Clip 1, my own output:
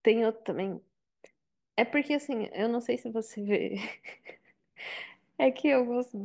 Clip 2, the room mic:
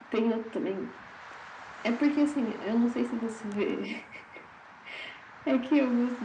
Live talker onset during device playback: none

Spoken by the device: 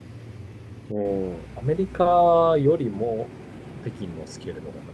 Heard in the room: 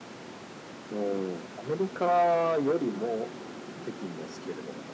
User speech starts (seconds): none

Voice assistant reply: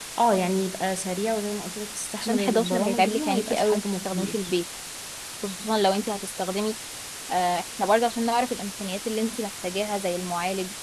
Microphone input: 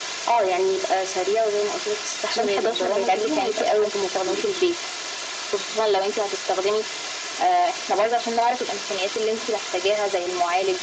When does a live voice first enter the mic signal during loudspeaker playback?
none

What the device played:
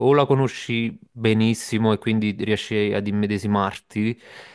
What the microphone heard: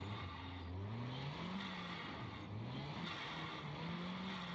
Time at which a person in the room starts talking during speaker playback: none

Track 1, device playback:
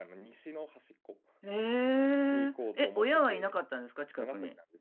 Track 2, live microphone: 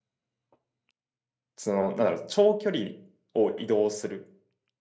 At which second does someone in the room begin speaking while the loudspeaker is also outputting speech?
2 s

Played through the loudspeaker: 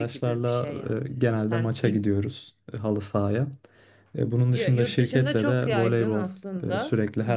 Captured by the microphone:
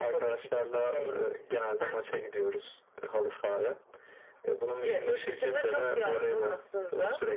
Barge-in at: none

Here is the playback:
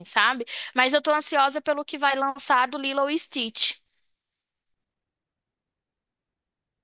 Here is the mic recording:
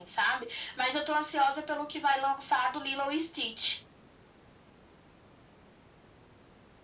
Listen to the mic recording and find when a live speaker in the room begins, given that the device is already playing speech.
none

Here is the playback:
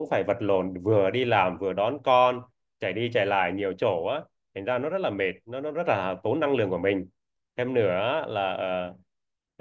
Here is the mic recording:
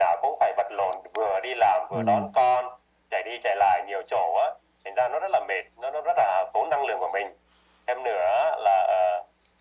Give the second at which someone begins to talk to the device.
2 s

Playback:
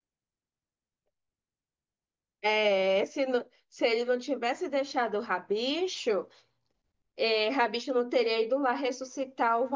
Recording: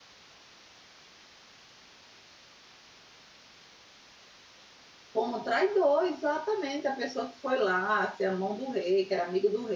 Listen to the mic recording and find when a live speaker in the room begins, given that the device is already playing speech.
5 s

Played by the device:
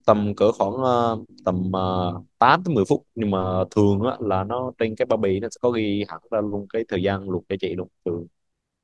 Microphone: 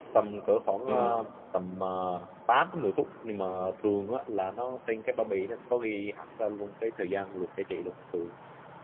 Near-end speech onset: 1 s

